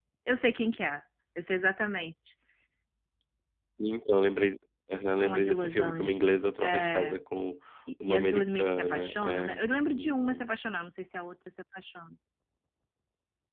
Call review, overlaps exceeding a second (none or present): present